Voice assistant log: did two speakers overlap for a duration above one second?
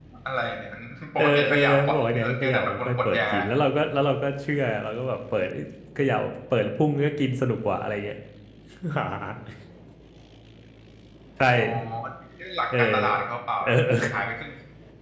Yes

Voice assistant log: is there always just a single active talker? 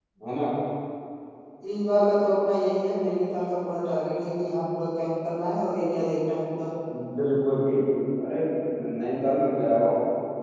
Yes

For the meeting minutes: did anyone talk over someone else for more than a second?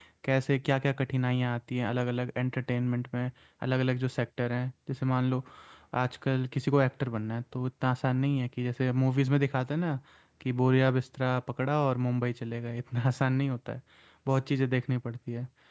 No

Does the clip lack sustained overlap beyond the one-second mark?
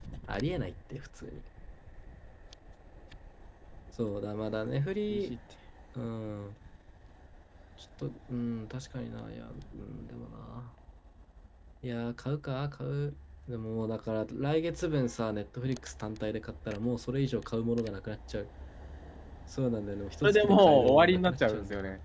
No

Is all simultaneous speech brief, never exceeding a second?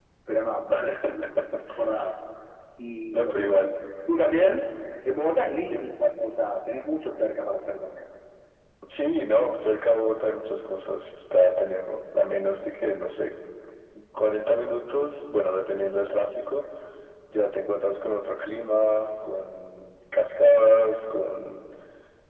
Yes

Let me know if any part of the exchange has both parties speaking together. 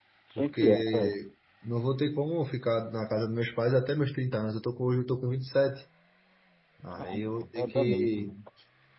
Yes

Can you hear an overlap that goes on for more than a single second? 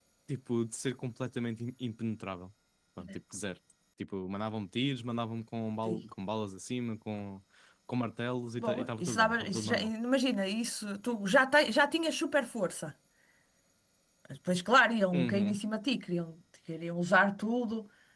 Yes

